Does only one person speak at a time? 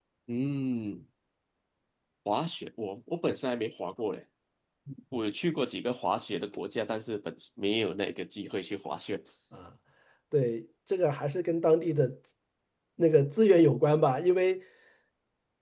Yes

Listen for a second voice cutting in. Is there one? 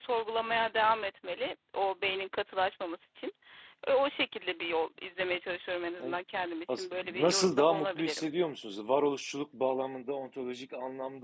Yes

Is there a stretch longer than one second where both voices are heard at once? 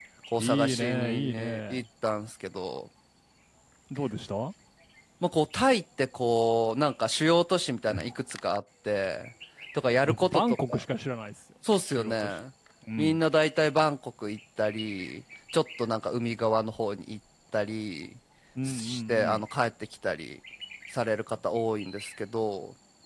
Yes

